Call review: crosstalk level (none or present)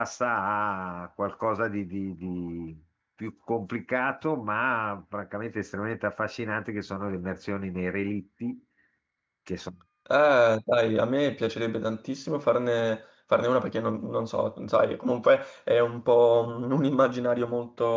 none